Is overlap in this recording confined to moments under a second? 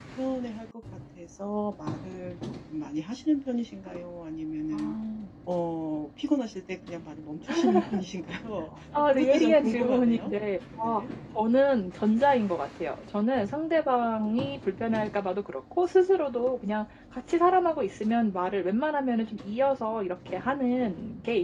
No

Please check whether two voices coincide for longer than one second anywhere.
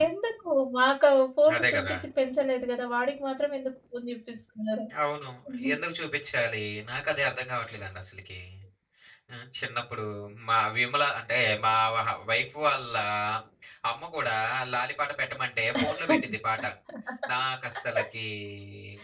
No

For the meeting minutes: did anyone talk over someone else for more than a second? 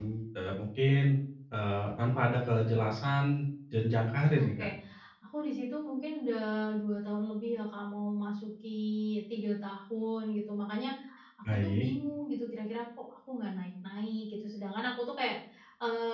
No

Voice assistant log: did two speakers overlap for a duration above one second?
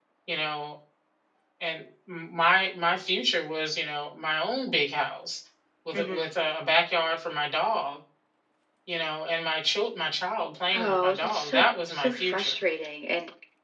Yes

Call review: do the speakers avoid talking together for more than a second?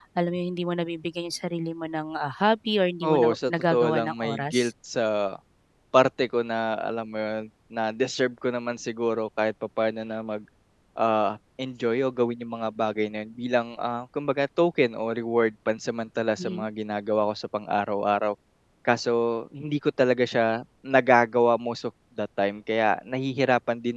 No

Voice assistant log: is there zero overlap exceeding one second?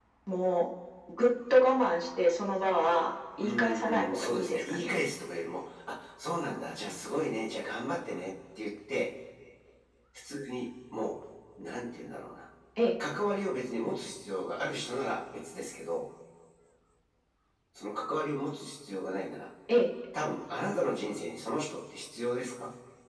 No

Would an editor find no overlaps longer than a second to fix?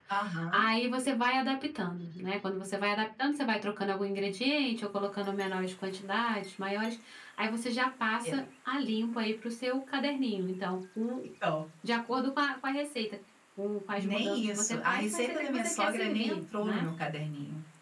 No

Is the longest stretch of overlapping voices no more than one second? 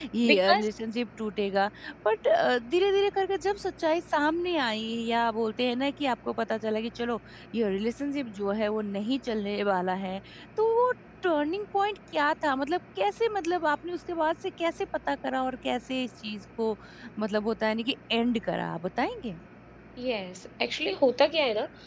Yes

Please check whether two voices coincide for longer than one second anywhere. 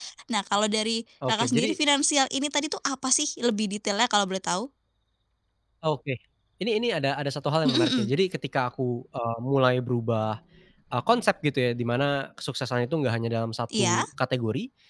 No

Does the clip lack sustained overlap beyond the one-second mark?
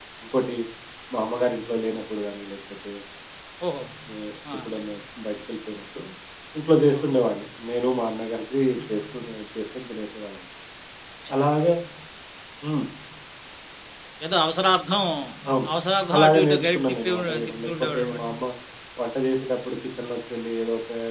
No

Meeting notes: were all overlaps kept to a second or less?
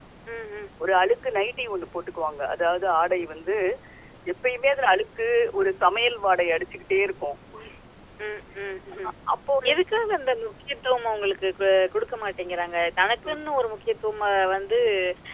Yes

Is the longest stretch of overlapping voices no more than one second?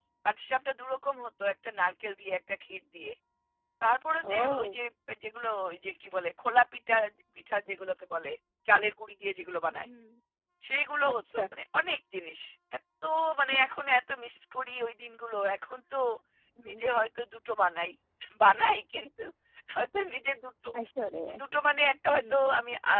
Yes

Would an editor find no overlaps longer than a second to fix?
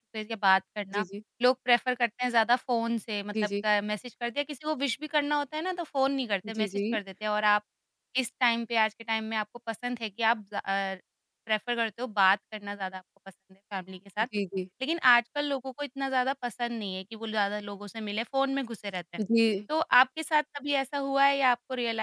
Yes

